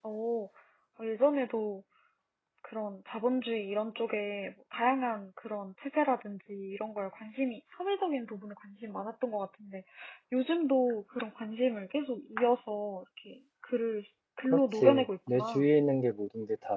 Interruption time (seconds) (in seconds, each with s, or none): 14.4 s